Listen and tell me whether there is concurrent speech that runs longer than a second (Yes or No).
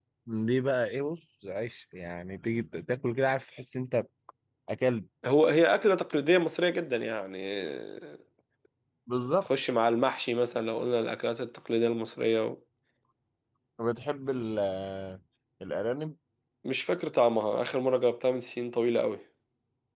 No